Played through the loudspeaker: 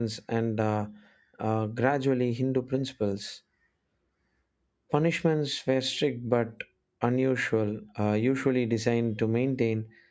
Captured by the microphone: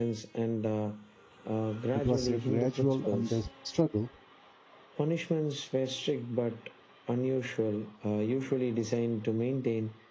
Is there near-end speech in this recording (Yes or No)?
Yes